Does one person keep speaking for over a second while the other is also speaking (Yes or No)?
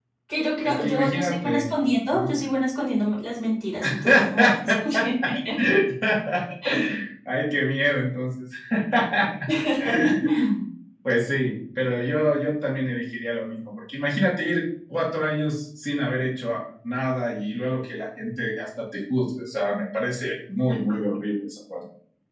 Yes